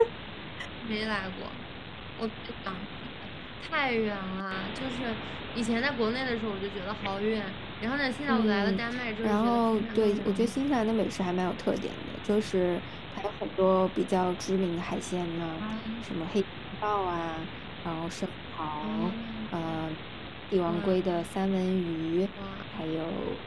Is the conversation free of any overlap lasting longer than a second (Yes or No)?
No